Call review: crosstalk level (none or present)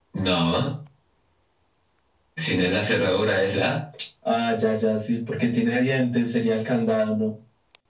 none